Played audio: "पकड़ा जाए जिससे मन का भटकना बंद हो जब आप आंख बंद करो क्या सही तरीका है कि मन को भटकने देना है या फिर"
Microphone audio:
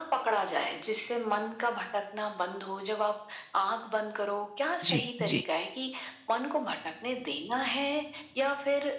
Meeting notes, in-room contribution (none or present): present